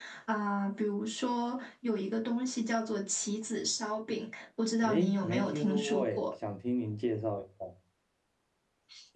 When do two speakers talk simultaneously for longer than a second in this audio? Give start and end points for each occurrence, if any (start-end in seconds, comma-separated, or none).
4.8-6.2